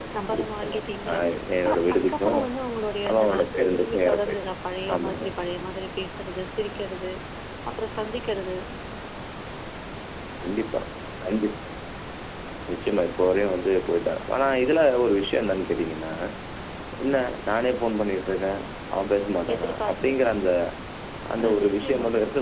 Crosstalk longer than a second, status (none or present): present